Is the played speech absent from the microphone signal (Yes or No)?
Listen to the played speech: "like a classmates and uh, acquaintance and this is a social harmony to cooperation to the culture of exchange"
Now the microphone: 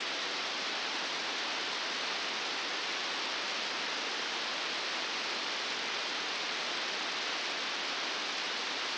Yes